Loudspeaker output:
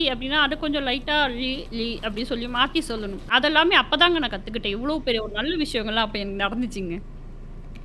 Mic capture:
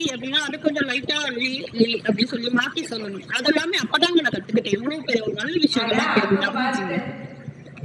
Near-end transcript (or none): ஆனா அப்ப பார்த்து